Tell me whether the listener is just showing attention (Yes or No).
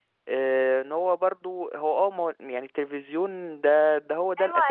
No